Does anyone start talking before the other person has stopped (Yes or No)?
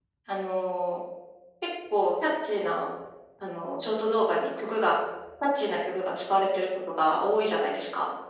No